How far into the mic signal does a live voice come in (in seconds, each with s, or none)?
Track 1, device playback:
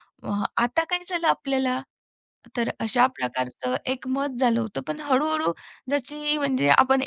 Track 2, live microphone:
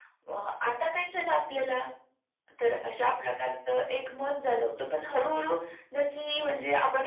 none